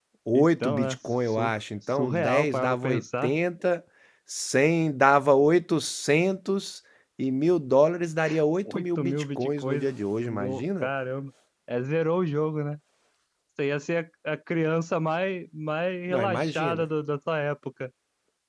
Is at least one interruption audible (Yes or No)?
Yes